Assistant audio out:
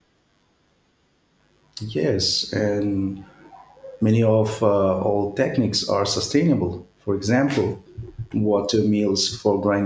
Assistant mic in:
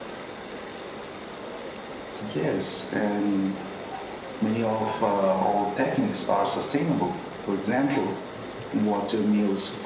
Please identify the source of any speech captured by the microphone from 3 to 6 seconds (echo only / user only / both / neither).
echo only